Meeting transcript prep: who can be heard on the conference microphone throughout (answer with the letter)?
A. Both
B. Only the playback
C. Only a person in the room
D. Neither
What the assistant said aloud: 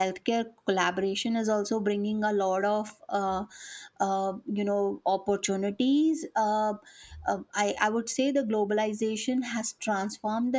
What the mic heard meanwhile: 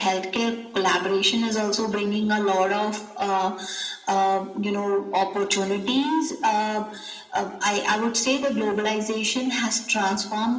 B